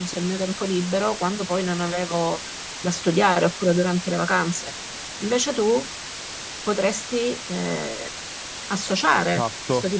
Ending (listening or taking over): taking over